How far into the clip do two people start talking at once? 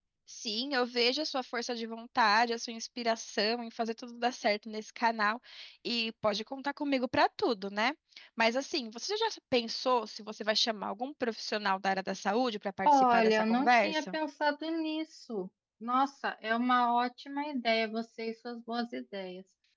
13 s

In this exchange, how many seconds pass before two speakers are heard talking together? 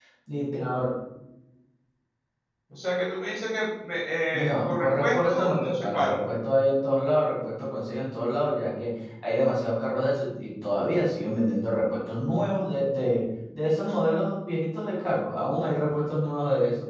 4 s

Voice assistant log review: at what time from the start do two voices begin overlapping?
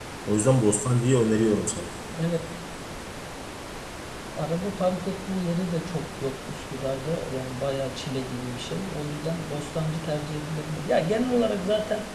none

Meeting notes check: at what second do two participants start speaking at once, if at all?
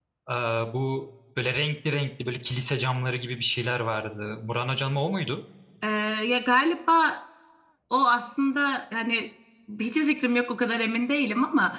none

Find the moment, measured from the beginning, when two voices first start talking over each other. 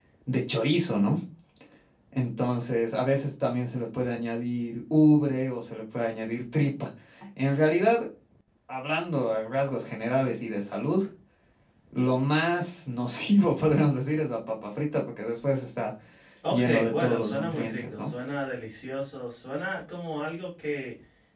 17 s

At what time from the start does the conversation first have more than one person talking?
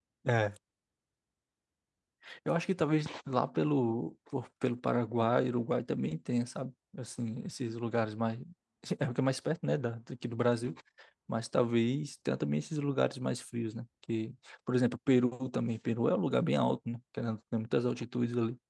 none

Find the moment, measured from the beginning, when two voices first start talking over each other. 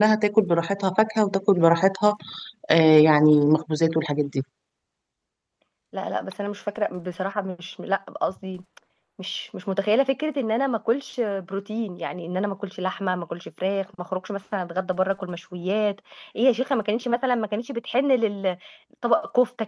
none

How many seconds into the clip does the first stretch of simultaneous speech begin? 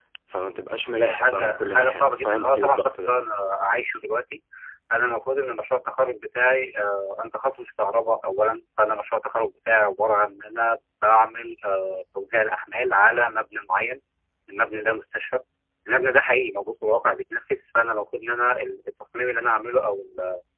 1 s

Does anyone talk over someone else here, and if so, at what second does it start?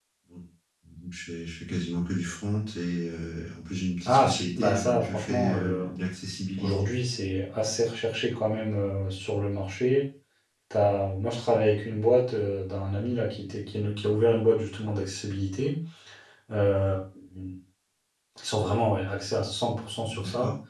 4 s

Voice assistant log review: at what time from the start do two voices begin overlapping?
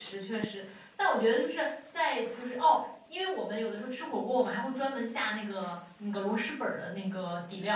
none

